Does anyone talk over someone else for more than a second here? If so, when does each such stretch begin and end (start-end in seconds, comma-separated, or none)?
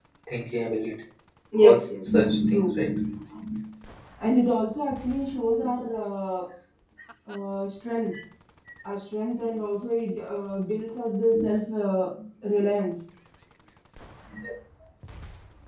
1.6-2.9